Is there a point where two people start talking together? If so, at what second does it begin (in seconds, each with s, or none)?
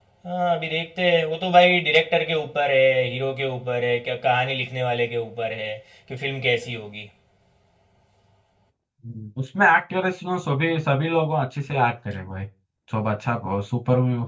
none